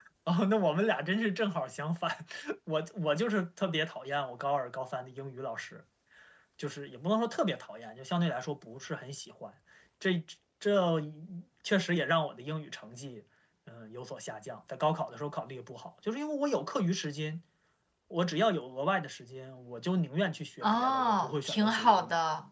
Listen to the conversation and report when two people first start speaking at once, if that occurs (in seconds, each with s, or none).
20.6 s